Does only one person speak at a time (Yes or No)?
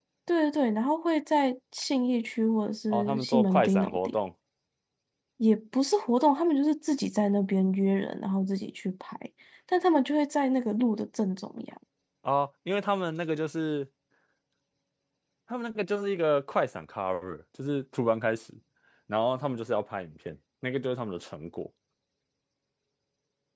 No